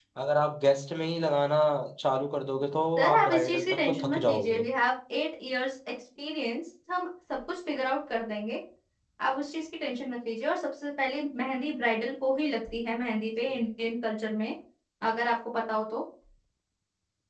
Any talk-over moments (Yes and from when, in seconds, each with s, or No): Yes, from 3.0 s